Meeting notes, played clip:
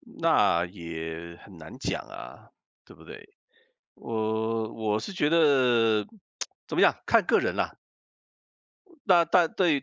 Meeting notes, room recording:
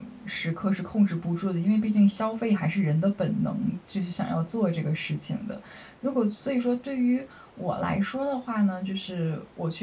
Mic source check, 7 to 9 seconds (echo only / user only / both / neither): user only